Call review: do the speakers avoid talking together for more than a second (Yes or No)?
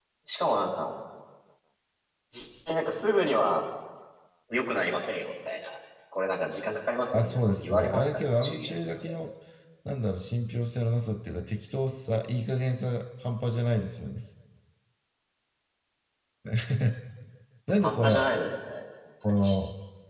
No